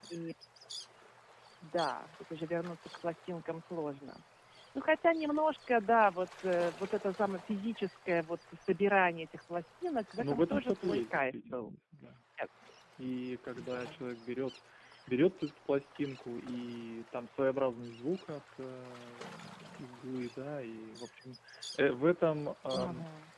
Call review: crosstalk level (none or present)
present